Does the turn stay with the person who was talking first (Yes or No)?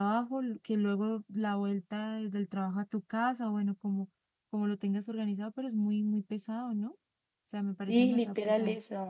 No